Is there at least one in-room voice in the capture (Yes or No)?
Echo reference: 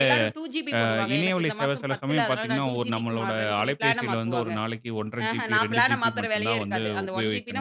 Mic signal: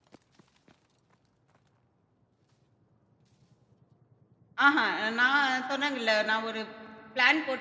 Yes